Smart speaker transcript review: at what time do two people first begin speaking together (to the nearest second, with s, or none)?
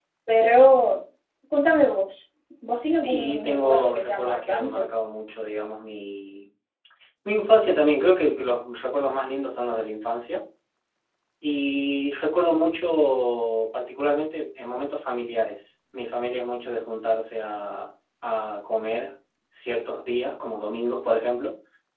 3 s